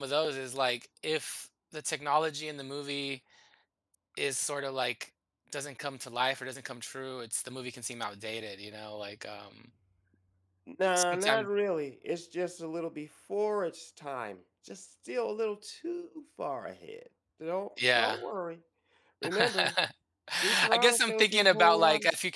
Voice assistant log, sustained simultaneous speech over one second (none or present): present